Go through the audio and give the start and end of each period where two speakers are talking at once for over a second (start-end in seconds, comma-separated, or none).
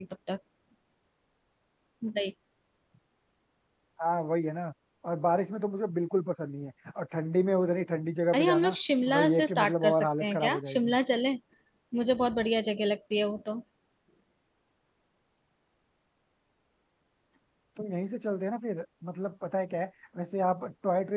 9.1-11.0